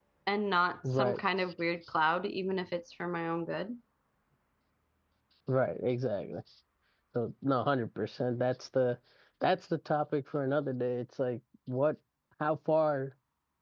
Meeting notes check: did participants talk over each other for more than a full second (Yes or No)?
No